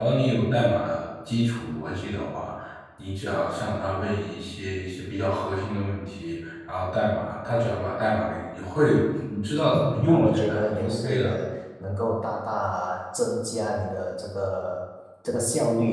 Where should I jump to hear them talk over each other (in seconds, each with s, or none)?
9.7 s